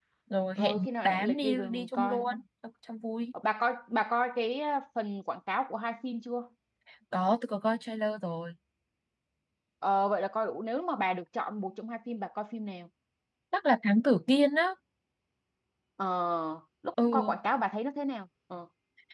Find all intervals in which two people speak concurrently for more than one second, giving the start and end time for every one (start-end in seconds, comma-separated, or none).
0.6-2.2